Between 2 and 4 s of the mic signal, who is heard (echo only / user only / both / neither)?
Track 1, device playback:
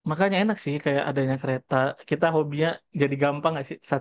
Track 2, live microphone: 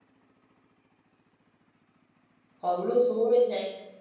user only